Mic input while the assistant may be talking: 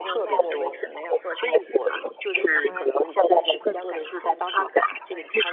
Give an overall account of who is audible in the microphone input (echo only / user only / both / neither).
echo only